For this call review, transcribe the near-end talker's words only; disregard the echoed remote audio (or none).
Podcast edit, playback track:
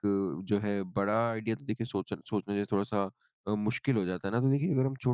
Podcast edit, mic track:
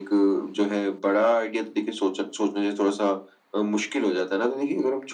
none